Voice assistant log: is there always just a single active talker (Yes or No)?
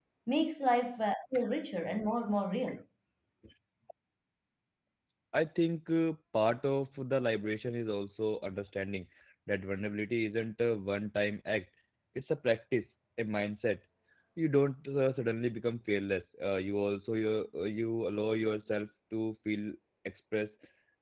Yes